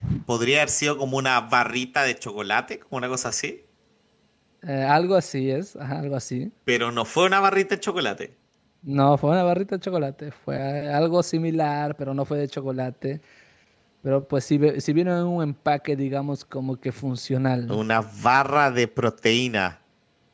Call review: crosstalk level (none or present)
none